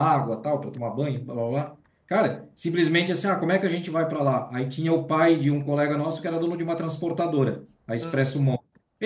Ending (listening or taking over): listening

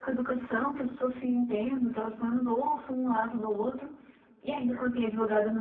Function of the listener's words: listening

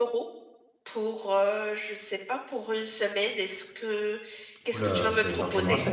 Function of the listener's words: taking over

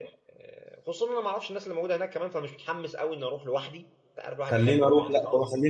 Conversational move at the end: taking over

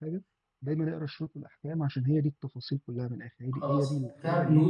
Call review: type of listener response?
taking over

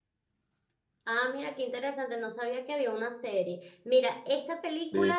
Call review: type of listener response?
listening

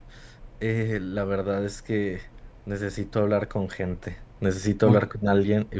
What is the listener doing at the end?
listening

